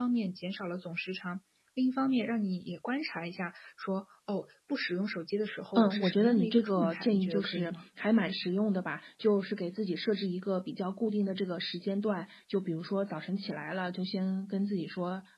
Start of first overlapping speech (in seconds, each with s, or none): 5.8 s